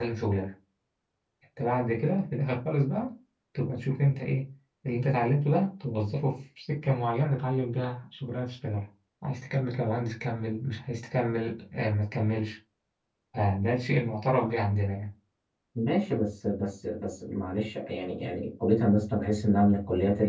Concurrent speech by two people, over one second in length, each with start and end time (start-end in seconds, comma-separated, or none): none